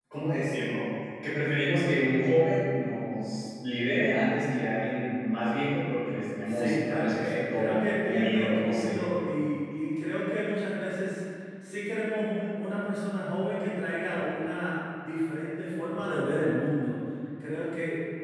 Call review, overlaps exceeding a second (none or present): present